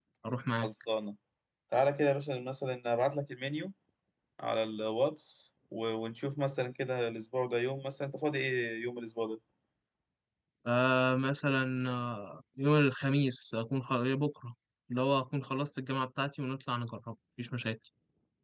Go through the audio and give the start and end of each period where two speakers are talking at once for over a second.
none

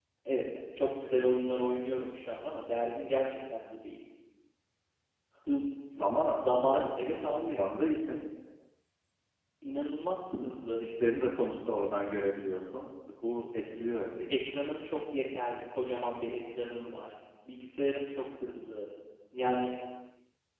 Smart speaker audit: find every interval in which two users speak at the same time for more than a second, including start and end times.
6.3-7.6

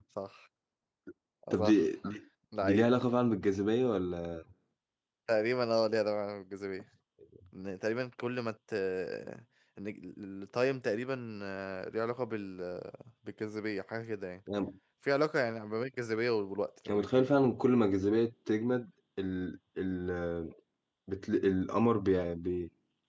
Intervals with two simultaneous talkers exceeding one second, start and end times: none

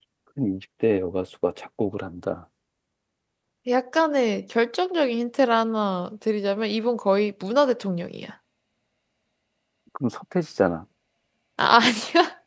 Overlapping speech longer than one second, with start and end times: none

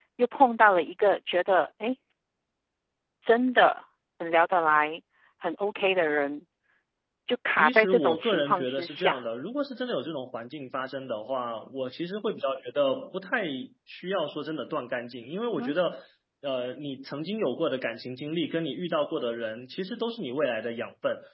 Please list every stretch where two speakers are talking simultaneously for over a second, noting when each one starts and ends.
7.6-9.2

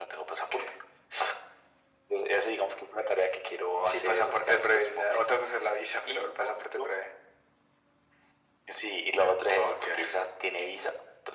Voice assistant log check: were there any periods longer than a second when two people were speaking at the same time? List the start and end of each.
3.8-5.2

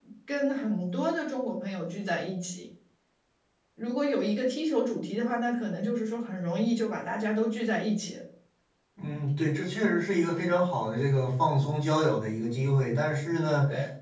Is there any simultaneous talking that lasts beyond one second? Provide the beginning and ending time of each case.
none

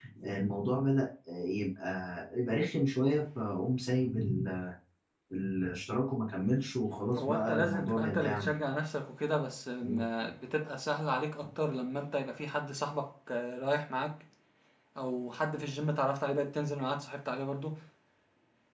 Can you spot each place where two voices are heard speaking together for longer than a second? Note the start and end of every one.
7.2-8.6

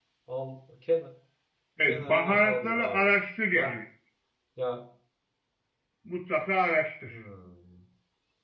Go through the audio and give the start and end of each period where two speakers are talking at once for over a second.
1.9-3.1

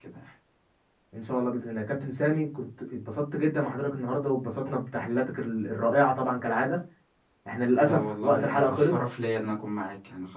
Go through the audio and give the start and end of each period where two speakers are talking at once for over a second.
7.8-9.0

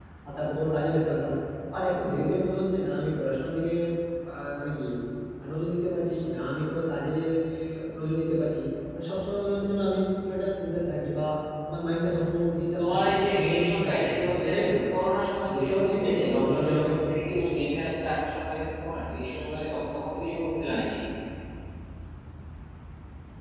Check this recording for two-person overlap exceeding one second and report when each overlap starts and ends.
12.8-14.5, 15.5-17.4

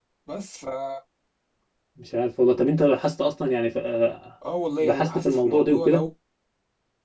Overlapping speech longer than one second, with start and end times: 4.7-6.0

